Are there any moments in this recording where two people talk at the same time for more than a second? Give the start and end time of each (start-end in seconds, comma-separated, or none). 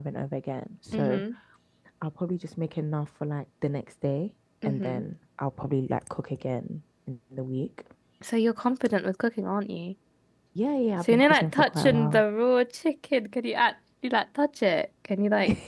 11.0-12.2